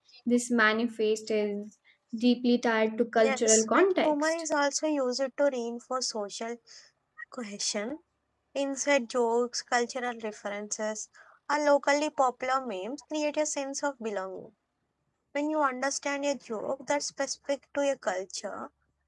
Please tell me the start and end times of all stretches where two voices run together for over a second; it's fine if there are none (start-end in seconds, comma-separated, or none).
3.2-4.4